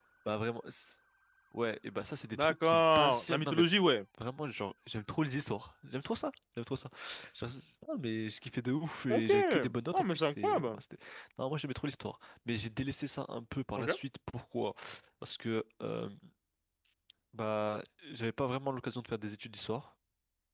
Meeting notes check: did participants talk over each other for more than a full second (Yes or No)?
Yes